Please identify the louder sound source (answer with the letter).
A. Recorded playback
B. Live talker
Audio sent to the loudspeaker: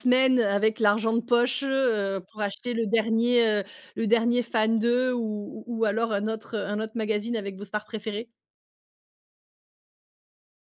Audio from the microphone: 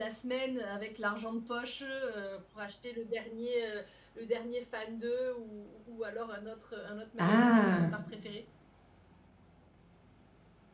B